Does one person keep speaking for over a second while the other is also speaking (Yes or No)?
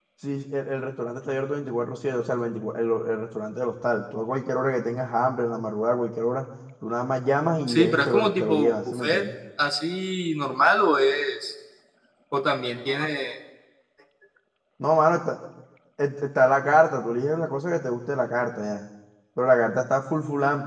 Yes